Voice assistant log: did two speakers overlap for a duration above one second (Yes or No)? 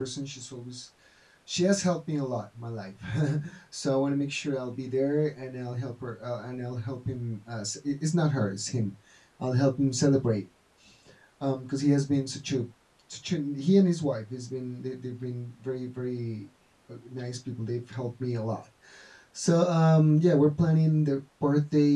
No